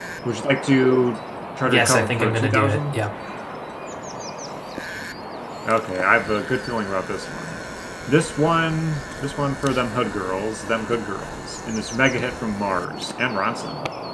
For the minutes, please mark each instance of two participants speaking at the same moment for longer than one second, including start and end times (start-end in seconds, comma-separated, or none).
1.6-3.0